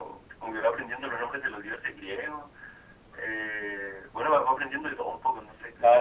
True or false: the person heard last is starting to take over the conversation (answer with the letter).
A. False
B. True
B